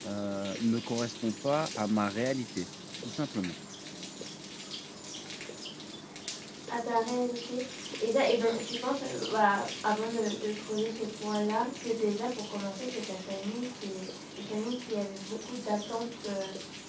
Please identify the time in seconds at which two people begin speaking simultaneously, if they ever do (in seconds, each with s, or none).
none